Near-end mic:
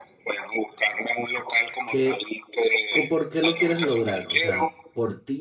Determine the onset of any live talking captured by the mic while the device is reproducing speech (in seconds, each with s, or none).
1.8 s